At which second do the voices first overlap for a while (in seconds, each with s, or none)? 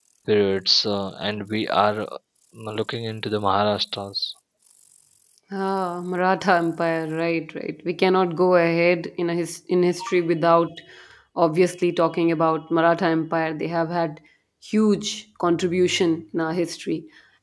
none